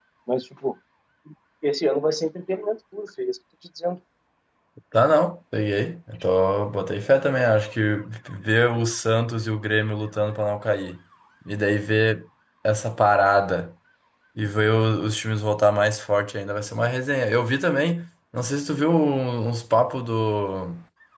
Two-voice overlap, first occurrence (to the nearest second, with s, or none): none